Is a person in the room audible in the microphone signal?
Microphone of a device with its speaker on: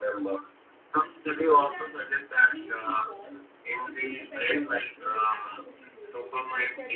Yes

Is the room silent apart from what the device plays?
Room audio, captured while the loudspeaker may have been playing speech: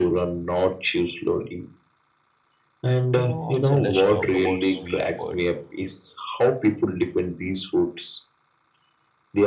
No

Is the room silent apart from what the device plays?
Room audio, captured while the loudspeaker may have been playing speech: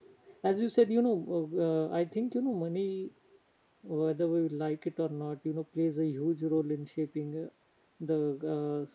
Yes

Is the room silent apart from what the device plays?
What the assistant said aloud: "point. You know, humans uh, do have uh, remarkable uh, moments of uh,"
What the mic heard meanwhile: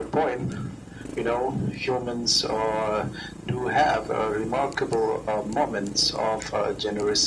Yes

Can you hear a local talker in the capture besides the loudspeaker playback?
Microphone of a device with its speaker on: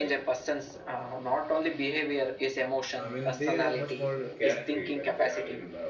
Yes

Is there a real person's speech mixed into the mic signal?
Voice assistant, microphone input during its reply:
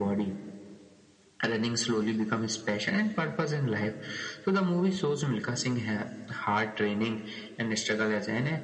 No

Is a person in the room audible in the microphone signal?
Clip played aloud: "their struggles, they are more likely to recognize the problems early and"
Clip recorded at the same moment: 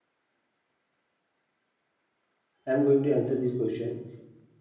Yes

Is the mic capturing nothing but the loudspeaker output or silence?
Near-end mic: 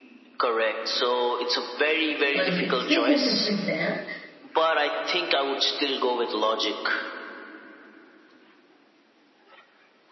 No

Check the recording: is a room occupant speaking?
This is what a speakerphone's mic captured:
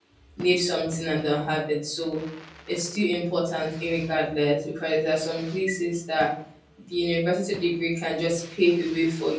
Yes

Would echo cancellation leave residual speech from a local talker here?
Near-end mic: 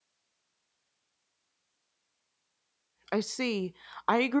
Yes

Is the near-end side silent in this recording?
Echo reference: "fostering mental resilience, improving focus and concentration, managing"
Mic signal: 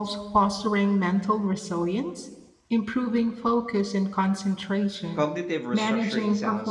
No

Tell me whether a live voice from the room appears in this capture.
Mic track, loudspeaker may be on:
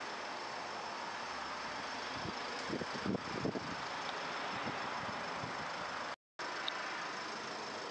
No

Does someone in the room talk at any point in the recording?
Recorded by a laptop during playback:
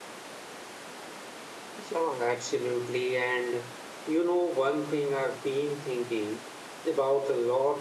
Yes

